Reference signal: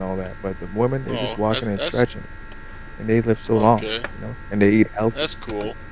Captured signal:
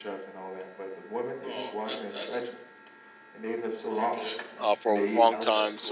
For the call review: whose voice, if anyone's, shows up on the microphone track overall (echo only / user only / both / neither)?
both